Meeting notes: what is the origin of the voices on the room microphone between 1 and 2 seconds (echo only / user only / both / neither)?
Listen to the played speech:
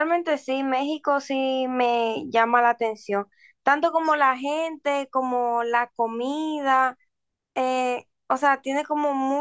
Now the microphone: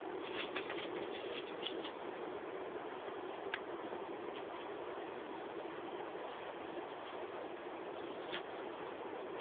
neither